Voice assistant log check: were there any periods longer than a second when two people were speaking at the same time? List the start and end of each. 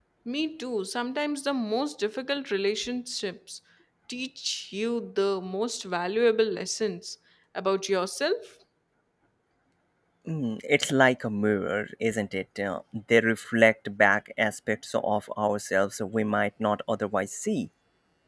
none

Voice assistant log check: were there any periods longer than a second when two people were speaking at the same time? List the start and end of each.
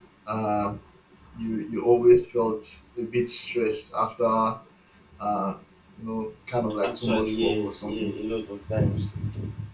6.8-8.1

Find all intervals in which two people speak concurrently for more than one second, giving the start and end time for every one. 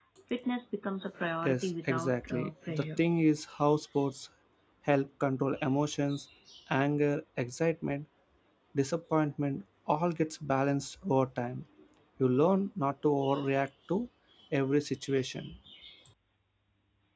1.4-3.0

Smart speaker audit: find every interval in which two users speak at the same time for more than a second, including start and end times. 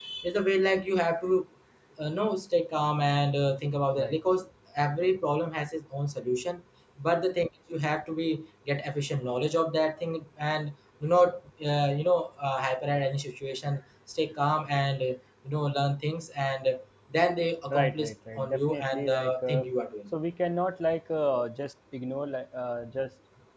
17.7-19.7

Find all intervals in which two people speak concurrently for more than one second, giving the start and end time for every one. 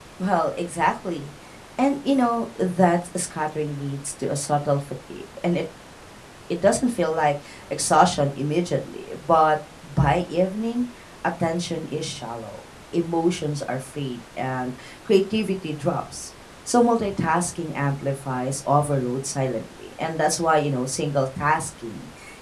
none

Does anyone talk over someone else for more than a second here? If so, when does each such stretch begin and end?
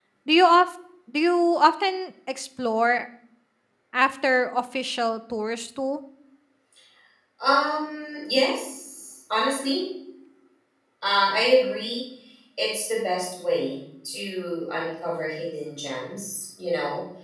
none

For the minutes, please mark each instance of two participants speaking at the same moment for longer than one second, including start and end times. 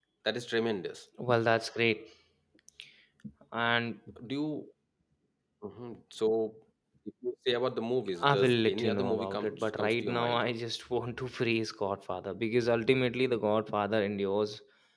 8.2-10.4

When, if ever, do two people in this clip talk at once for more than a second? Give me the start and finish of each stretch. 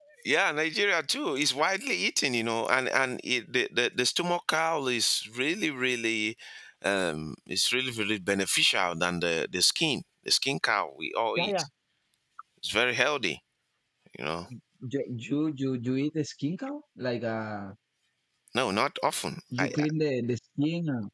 none

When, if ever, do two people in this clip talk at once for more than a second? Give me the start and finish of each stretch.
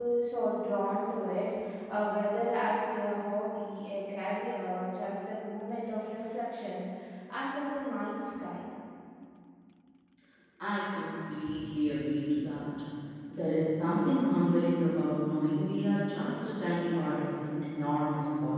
none

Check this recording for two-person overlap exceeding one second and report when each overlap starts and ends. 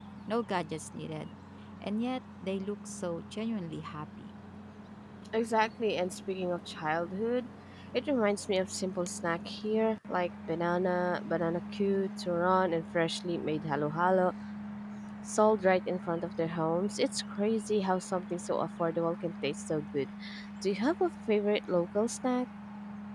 none

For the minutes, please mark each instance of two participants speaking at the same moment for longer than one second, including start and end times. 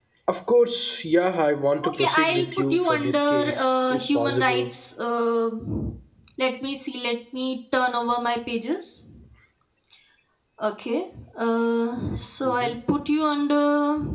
2.0-4.6

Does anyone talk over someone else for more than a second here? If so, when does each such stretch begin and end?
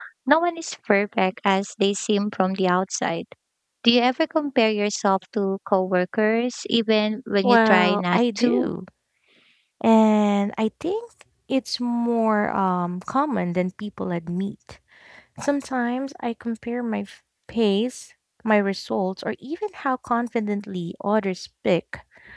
7.4-8.7

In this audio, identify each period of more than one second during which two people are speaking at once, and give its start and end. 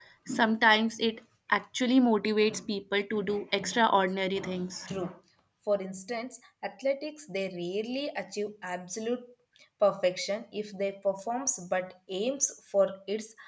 none

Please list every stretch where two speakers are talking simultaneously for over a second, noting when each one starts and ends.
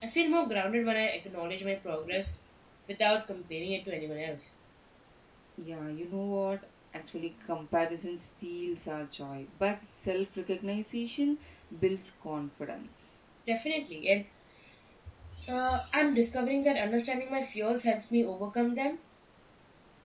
none

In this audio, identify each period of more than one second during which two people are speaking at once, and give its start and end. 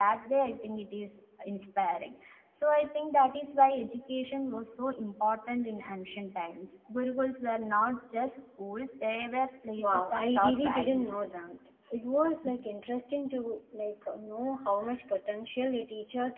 9.8-11.2

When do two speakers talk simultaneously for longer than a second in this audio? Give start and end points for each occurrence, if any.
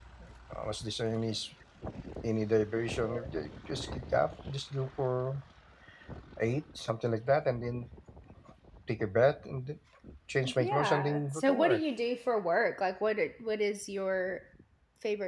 10.6-11.8

